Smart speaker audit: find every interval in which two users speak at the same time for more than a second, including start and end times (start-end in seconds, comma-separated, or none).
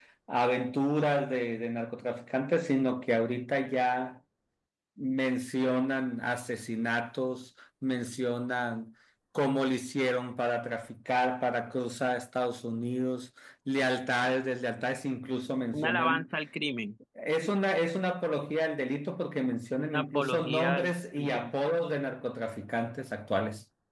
19.8-21.5